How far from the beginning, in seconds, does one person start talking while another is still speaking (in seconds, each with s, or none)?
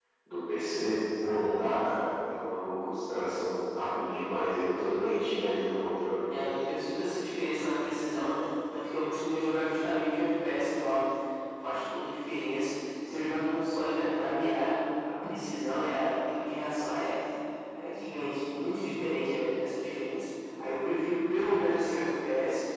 none